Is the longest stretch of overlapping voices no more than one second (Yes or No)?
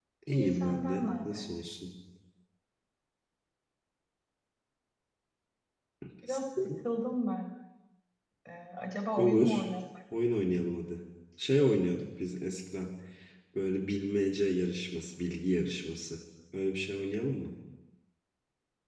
No